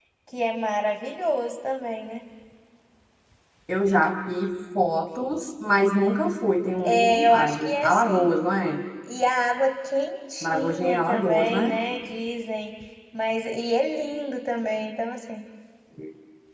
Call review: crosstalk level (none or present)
present